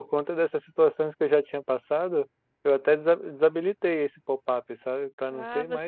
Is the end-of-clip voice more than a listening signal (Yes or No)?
Yes